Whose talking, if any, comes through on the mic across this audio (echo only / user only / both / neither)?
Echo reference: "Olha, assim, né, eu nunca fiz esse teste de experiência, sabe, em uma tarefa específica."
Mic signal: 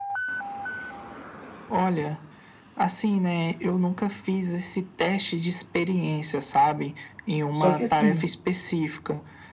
both